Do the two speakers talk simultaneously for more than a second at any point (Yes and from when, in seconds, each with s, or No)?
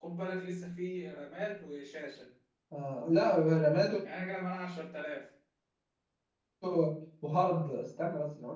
No